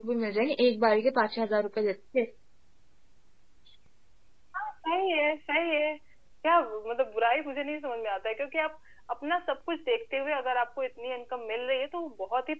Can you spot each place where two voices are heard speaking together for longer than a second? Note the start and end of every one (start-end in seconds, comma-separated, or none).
none